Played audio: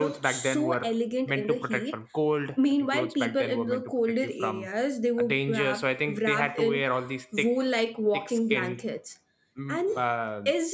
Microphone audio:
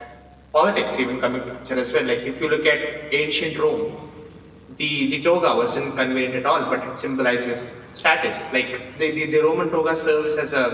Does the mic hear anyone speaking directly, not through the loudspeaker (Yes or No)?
Yes